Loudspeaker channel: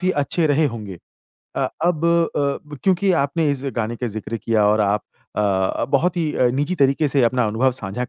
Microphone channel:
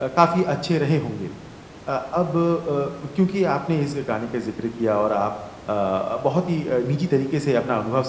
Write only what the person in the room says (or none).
none